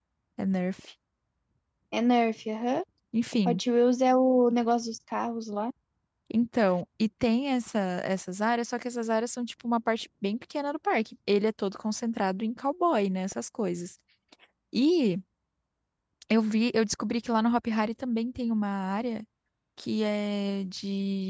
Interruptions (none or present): none